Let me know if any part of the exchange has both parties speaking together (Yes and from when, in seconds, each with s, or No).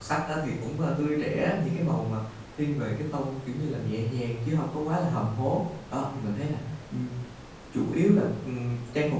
No